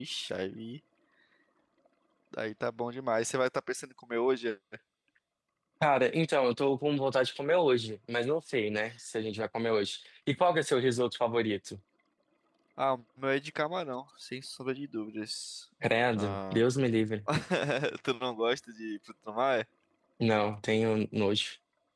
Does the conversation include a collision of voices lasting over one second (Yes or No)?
No